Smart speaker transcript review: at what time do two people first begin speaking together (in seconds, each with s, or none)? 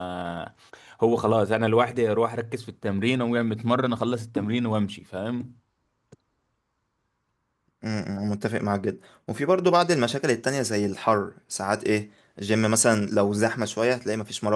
none